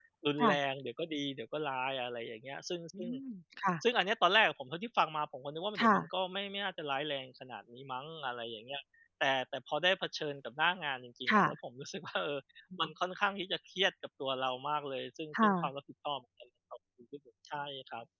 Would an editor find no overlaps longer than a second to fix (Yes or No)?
Yes